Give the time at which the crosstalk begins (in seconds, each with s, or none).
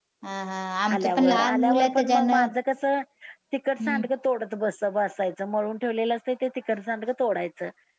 0.9 s